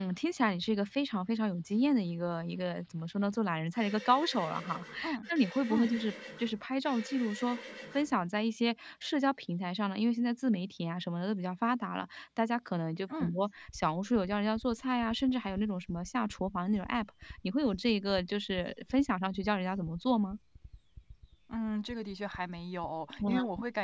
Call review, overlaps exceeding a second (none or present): none